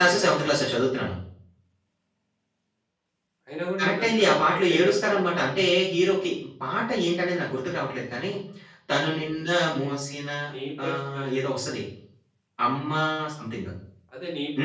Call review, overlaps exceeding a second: present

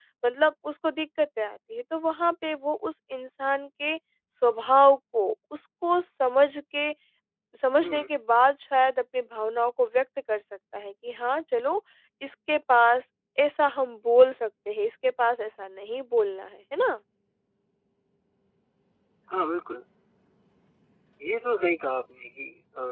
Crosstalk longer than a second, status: none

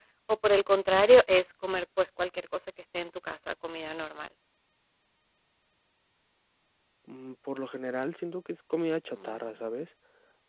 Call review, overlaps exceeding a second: none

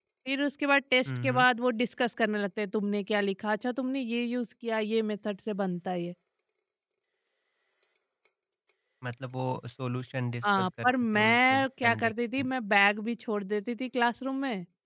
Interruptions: present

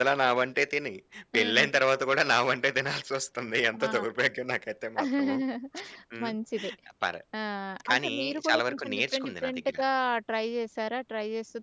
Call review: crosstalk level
present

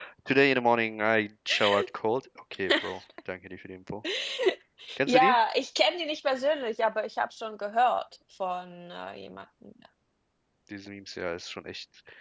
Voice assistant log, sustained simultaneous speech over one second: none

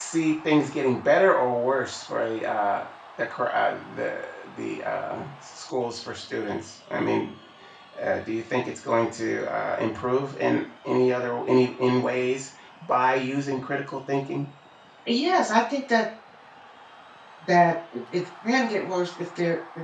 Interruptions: none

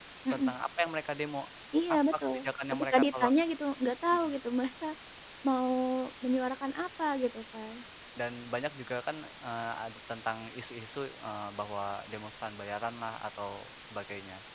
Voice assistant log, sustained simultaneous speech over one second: present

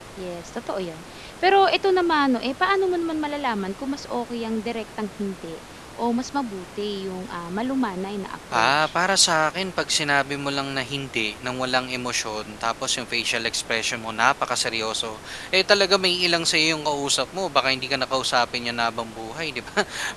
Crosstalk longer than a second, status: none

